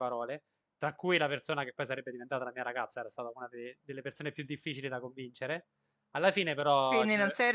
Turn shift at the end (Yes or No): Yes